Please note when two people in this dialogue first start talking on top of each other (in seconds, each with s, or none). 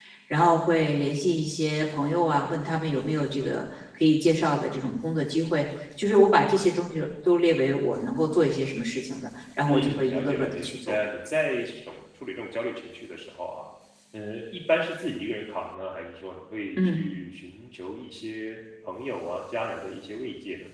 9.7 s